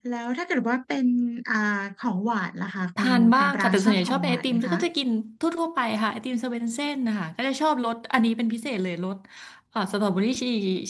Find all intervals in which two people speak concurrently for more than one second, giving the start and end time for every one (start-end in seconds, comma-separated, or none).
3.0-4.8